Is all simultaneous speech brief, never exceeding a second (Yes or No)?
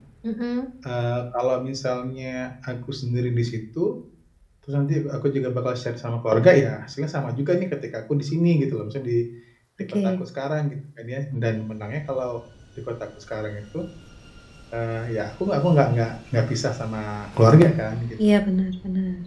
Yes